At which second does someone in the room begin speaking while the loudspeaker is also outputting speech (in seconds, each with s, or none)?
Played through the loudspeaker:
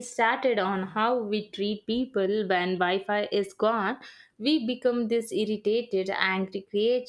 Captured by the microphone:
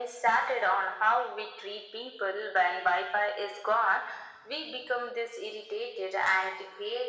none